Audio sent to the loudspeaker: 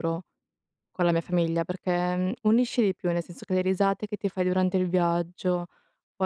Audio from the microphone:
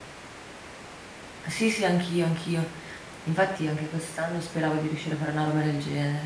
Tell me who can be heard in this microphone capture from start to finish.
user only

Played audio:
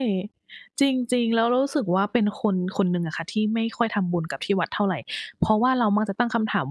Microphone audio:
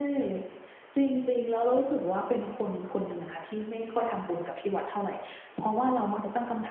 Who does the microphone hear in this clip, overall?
echo only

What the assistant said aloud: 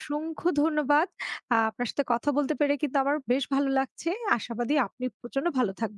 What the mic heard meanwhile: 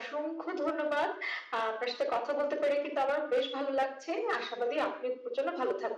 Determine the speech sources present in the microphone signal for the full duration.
echo only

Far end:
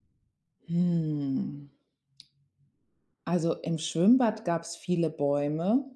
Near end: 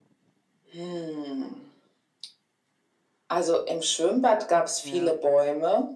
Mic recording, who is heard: both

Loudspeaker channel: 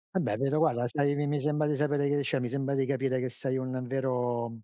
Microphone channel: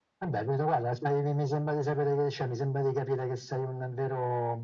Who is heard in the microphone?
echo only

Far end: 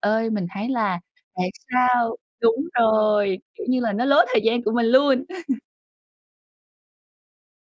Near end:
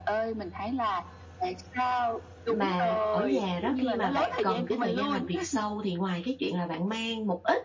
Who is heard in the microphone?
both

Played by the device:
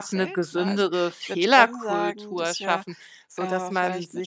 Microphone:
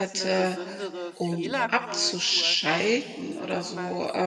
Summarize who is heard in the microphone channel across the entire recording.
both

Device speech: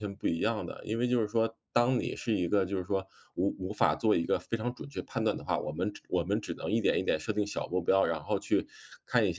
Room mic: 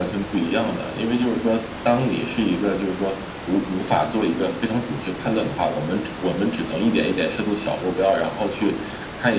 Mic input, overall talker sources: echo only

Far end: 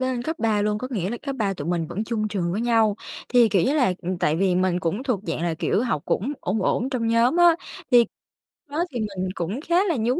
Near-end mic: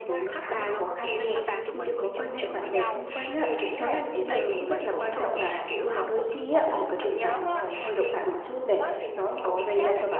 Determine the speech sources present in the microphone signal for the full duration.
both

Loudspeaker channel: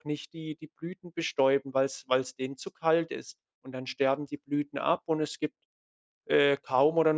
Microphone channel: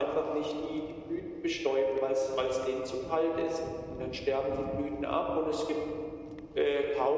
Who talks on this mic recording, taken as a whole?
echo only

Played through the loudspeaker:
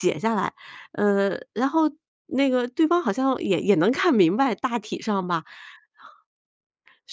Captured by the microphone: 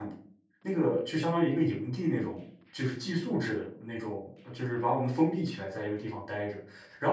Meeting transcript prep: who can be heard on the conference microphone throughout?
user only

